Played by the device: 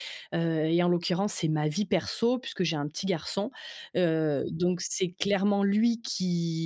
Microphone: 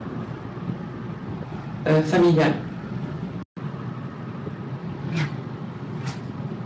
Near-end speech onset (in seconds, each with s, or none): 1.9 s